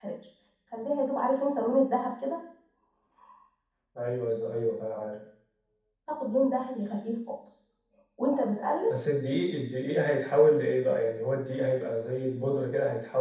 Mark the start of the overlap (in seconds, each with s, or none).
none